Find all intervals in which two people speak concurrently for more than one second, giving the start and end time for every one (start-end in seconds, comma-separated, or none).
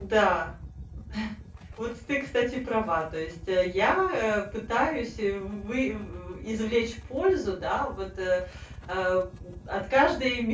none